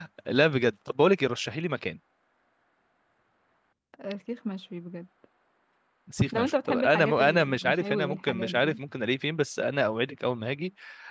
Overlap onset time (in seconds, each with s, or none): 6.3 s